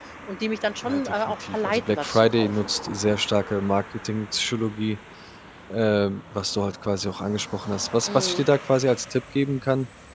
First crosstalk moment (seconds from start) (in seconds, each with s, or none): 0.8 s